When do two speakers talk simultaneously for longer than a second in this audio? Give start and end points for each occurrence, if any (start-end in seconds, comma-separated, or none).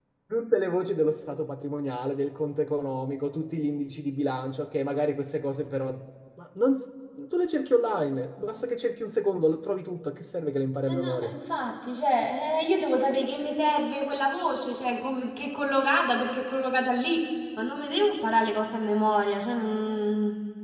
none